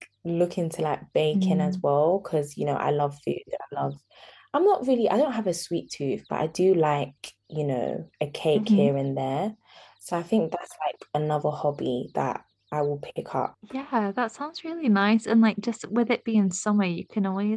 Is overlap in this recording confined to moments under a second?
Yes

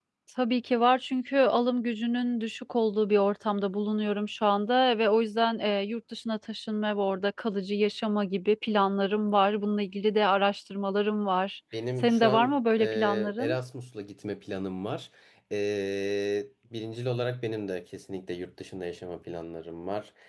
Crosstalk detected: Yes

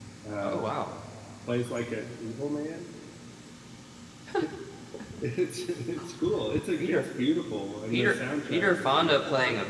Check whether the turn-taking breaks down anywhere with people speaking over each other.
Yes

